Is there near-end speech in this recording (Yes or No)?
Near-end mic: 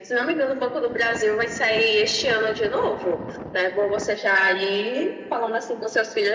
No